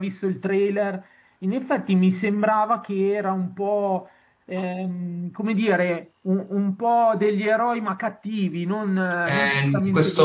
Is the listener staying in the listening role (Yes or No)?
No